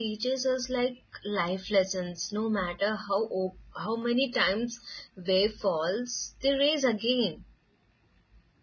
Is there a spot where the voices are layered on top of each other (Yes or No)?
No